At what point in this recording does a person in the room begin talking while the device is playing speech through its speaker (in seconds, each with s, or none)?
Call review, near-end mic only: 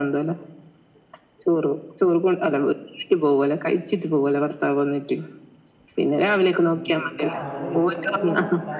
6.7 s